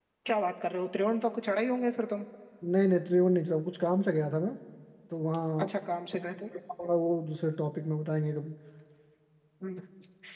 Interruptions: none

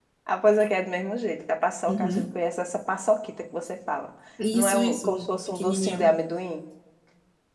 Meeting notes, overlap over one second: present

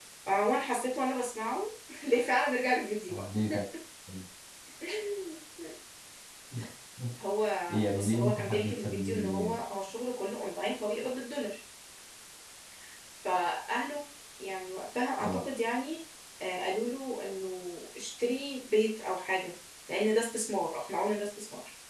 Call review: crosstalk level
present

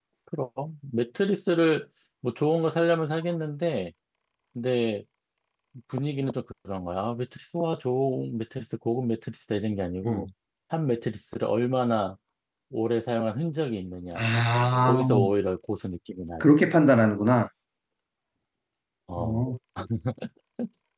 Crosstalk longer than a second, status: none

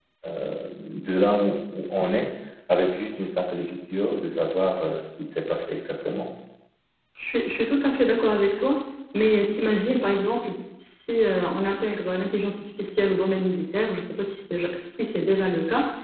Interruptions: none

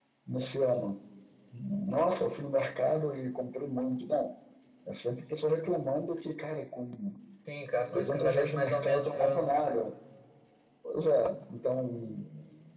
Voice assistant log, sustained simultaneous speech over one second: present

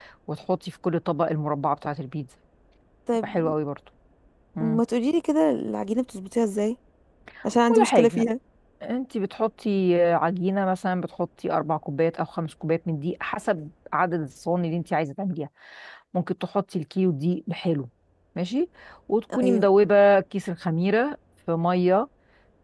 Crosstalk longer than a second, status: none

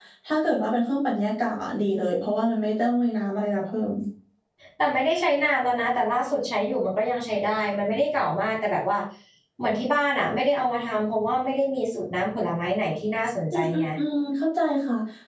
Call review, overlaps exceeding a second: none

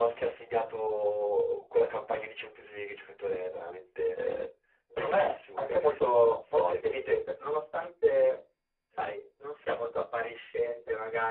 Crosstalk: present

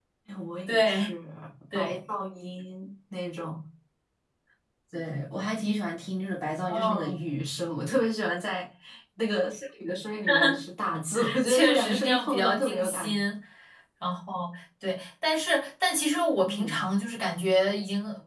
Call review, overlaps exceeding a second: present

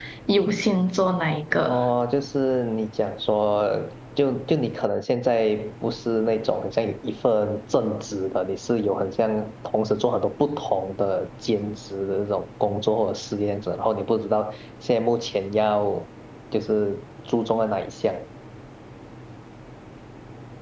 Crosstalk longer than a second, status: none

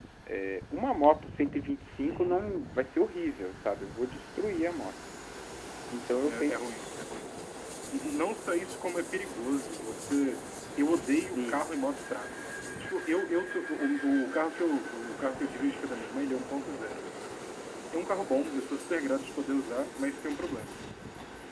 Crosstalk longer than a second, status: none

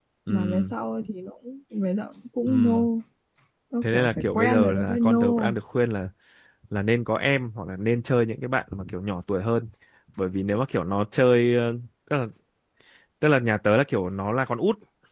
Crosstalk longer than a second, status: present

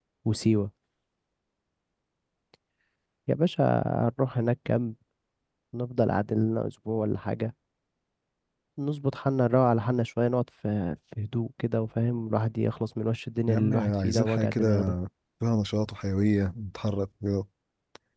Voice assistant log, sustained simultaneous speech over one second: present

